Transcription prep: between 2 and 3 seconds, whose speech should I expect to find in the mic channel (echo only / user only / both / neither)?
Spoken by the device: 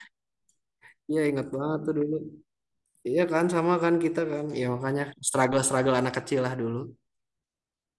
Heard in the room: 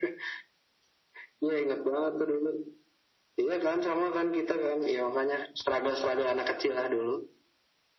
echo only